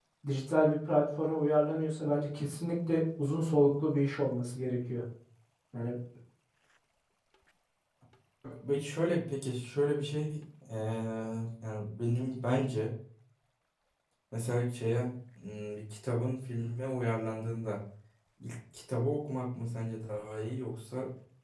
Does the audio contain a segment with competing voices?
No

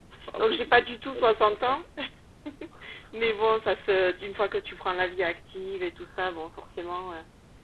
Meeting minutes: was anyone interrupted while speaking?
Yes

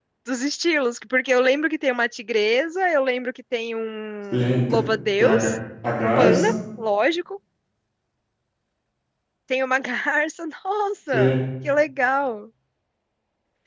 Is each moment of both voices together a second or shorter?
Yes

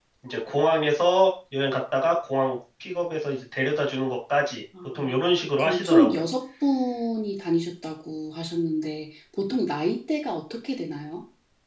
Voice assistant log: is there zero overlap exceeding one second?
No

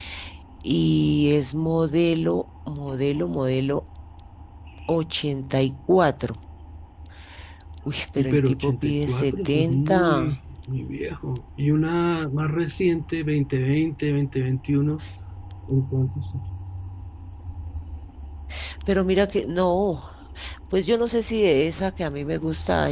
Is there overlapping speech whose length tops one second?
Yes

